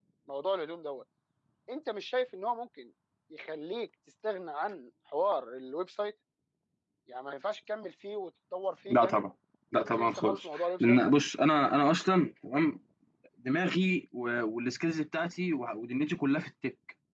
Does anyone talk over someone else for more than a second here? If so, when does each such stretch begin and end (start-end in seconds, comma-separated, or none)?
9.8-11.1